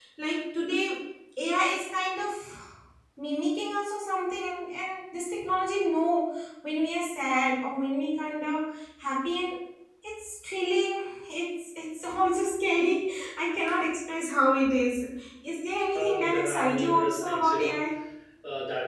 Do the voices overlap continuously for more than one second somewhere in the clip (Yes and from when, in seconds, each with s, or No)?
Yes, from 15.9 s